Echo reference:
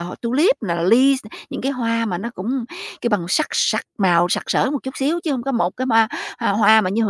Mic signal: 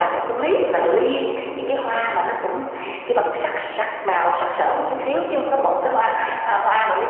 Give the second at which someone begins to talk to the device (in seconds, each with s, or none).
none